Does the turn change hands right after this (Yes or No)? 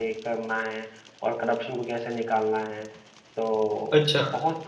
No